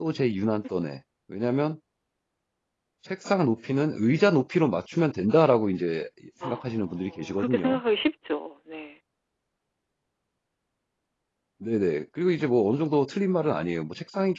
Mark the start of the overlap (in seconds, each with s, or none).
6.4 s